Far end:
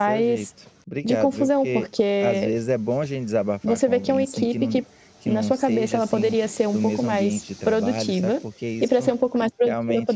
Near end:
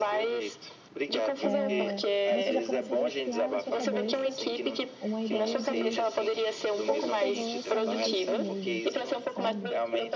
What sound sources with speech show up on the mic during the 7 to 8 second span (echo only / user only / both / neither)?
both